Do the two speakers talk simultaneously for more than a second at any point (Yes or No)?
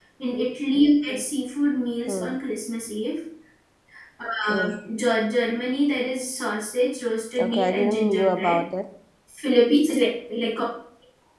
Yes